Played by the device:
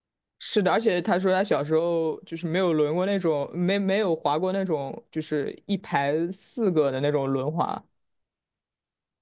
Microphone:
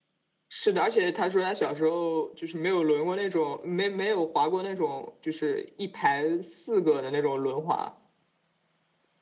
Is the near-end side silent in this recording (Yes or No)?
Yes